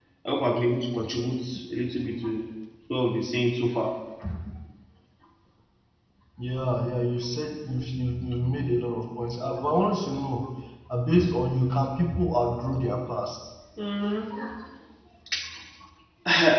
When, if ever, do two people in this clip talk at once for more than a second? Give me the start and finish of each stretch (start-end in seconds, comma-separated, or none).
none